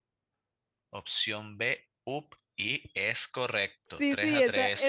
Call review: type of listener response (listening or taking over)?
taking over